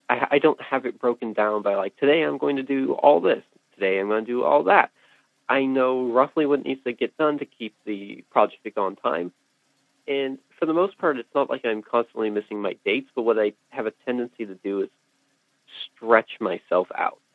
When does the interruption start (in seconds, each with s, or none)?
none